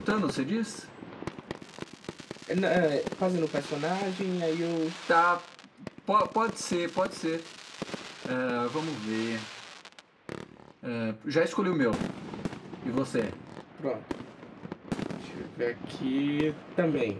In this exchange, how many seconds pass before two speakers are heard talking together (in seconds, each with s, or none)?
none